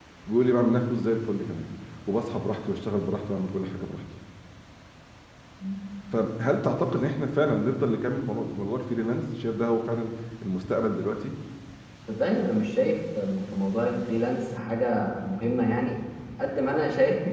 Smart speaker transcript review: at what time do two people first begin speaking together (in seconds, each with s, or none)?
none